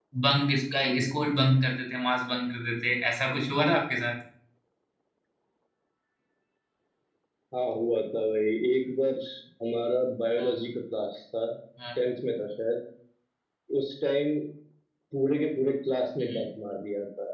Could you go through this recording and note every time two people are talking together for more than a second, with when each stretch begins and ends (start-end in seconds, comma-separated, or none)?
none